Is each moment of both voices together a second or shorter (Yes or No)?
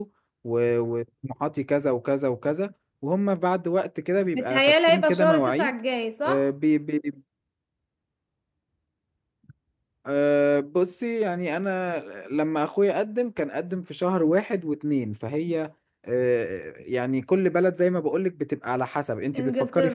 No